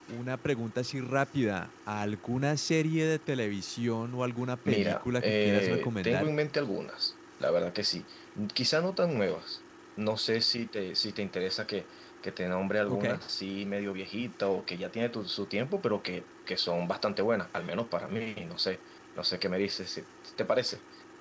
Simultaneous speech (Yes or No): Yes